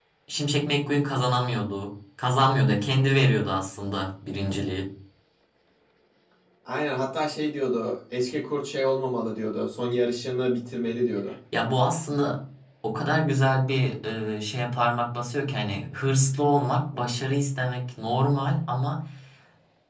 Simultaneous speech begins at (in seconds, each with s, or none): none